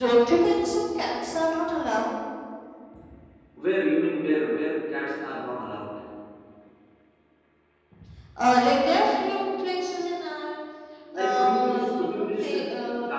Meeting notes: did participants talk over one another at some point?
Yes, from 11.1 s

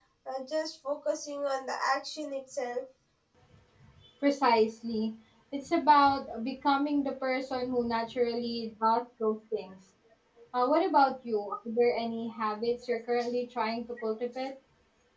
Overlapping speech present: No

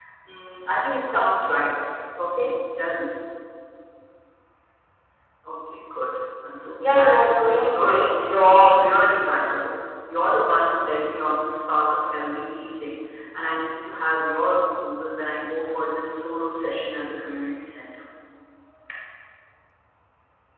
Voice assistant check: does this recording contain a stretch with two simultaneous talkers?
Yes, from 6.8 s

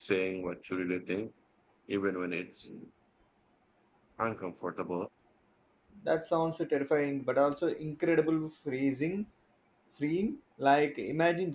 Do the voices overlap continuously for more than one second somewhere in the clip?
No

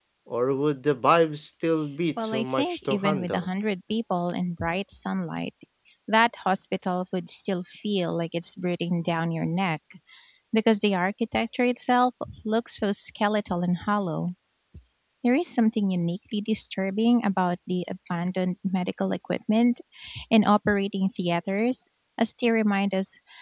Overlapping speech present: Yes, from 2.2 s

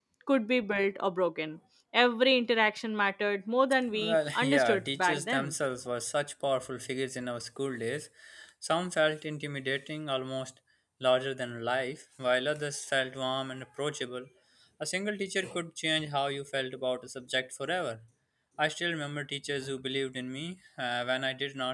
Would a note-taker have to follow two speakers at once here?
Yes, from 3.9 s

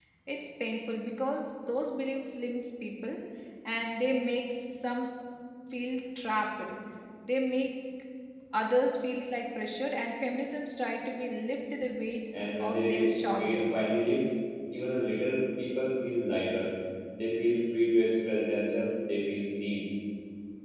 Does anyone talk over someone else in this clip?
Yes, from 12.6 s

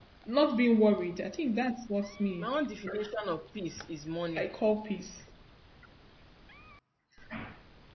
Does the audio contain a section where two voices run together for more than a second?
No

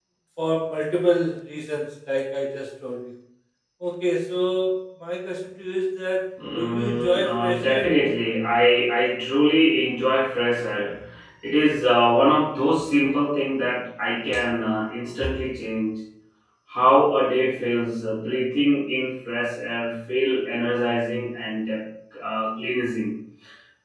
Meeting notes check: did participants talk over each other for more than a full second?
Yes, from 6.4 s

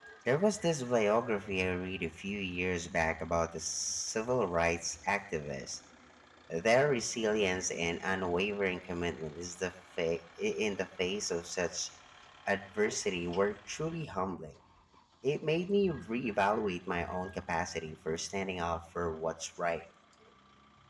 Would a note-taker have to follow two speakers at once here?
No

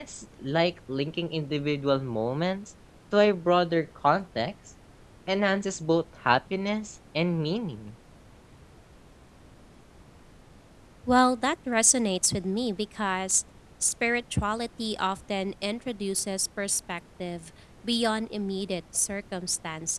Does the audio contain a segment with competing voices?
No

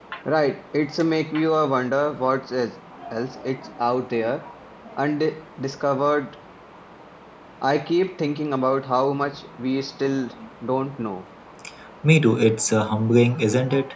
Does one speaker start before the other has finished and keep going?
No

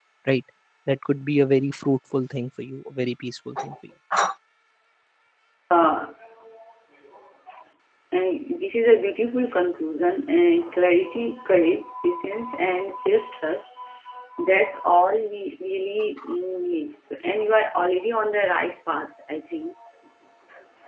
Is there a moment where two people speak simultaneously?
No

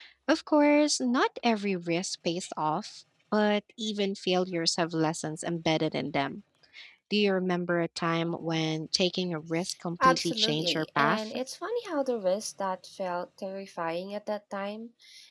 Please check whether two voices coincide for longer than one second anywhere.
Yes, from 10.0 s

